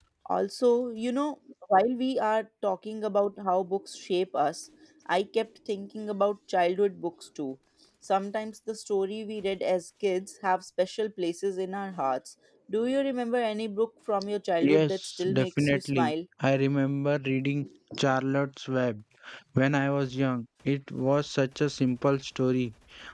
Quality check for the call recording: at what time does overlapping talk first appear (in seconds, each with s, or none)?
14.6 s